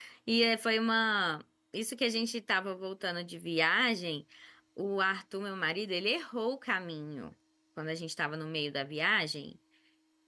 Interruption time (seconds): none

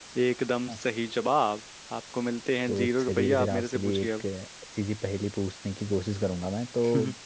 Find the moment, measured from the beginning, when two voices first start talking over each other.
2.7 s

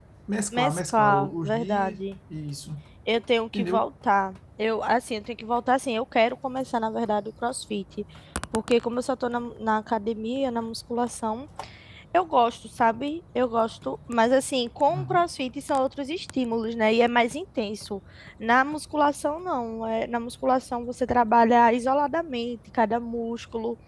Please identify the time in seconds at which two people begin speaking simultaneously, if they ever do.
0.5 s

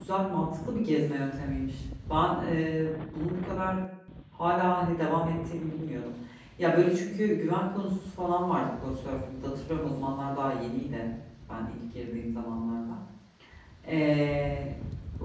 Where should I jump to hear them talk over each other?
none

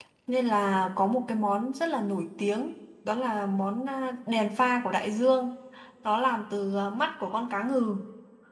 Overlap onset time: none

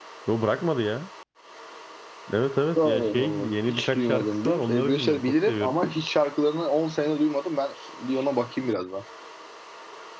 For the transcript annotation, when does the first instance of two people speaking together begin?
2.8 s

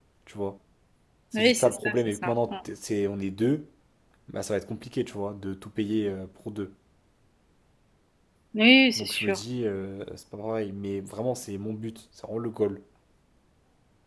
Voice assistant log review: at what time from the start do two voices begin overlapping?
1.4 s

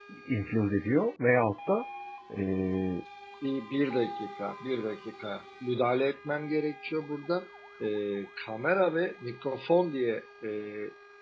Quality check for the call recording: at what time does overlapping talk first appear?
none

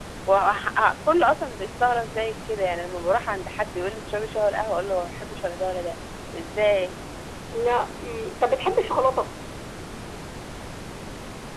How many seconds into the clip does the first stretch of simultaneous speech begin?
none

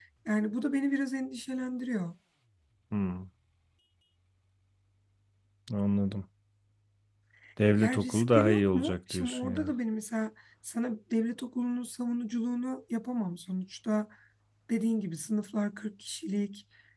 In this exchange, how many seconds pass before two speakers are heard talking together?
7.8 s

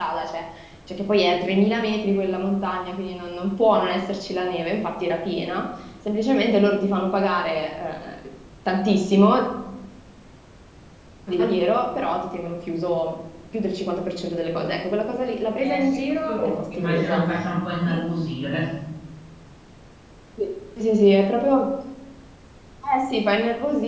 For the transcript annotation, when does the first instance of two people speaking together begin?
15.6 s

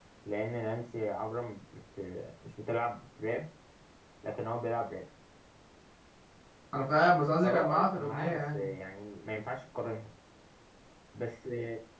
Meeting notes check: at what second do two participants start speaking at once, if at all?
7.4 s

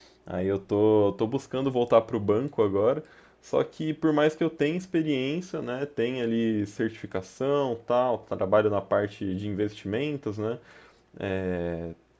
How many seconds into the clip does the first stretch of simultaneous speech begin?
none

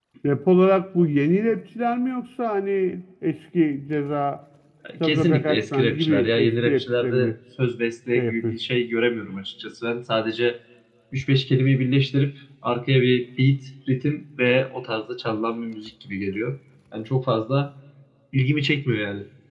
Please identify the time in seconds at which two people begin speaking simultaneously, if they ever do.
5.0 s

